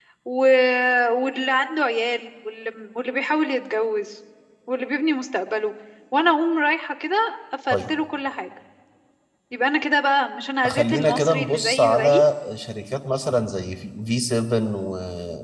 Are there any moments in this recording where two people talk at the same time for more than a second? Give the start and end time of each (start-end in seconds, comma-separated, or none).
10.6-12.2